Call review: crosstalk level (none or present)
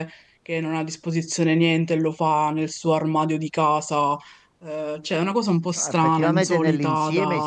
present